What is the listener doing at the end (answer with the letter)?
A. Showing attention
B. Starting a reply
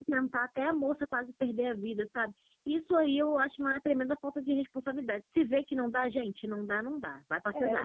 B